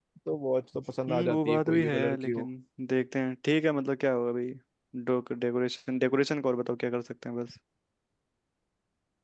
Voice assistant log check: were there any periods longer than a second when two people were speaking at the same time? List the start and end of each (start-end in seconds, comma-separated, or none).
1.1-2.4